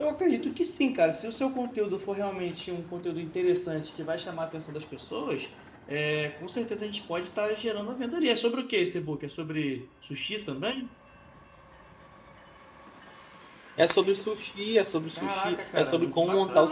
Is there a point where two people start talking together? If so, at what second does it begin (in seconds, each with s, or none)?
15.2 s